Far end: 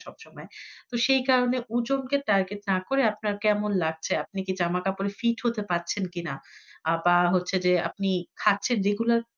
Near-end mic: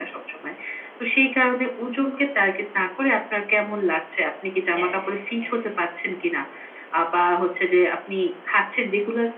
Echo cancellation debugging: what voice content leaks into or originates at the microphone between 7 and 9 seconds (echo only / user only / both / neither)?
echo only